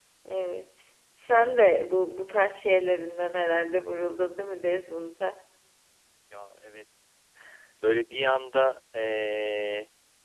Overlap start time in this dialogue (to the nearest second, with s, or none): none